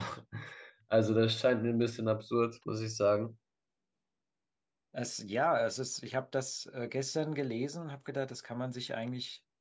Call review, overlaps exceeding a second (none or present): none